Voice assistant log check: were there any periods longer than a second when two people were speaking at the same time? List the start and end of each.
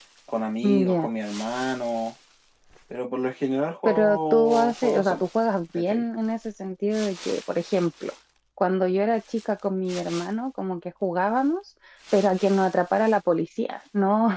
3.9-5.2

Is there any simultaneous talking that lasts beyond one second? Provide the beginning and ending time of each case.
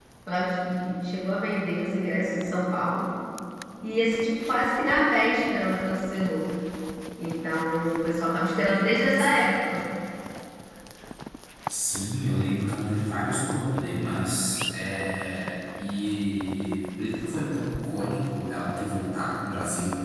none

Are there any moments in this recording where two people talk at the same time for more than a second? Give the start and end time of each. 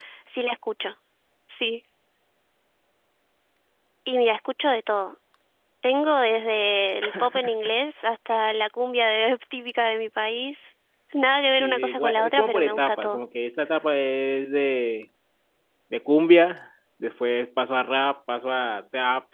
11.6-13.2

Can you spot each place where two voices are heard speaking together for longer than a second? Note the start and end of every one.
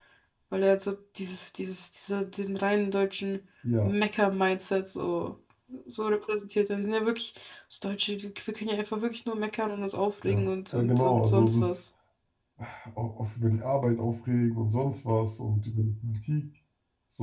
10.2-11.8

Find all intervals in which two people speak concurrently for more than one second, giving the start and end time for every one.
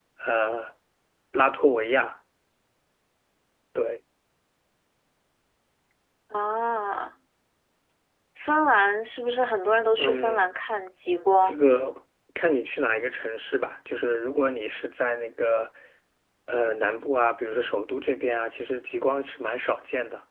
none

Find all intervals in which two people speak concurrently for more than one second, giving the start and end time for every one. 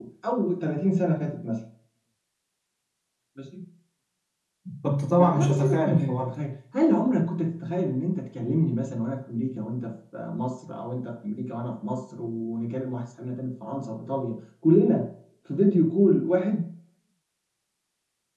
5.2-6.4

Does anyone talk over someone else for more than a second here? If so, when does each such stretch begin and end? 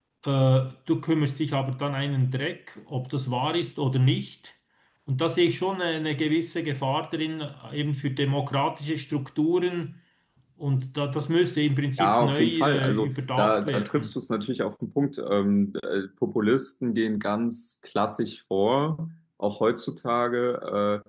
12.0-14.1

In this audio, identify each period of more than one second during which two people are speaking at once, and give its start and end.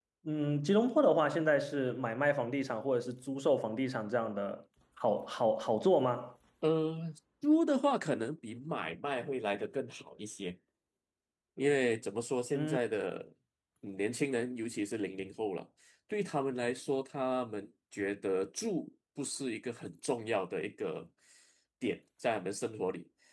none

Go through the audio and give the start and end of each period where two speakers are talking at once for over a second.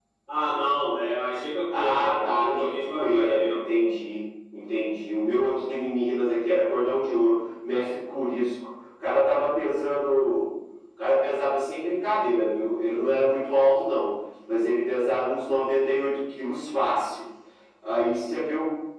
1.7-3.6

